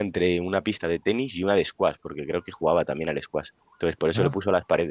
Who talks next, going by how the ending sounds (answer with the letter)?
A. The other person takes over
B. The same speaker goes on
B